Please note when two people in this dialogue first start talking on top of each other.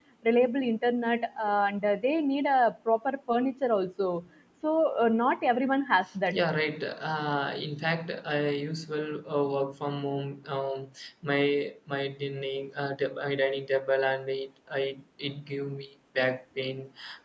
none

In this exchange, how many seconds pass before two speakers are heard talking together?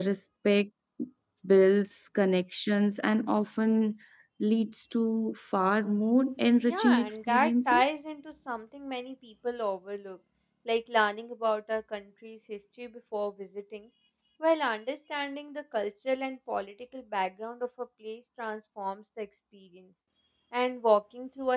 7 s

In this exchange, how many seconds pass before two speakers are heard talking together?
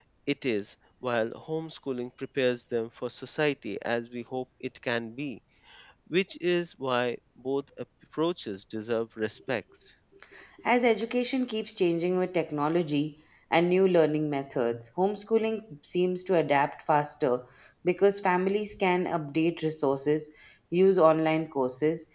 none

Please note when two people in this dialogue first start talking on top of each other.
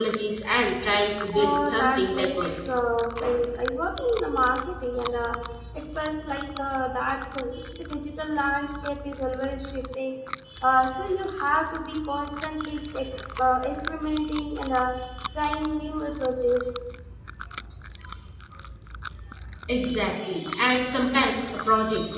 1 s

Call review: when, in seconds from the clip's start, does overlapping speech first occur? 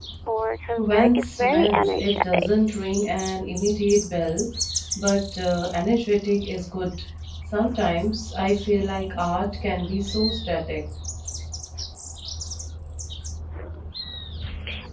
1 s

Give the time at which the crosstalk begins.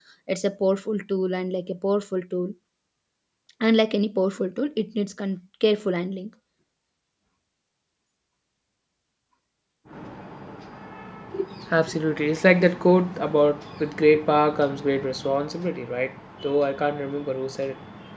none

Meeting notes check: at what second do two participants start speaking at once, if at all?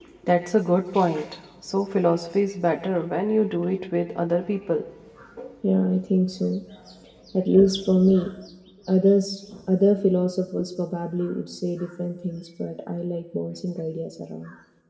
none

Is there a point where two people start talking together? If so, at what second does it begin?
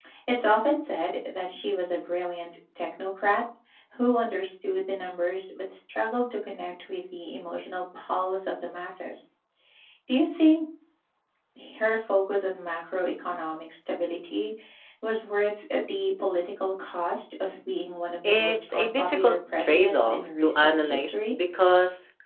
18 s

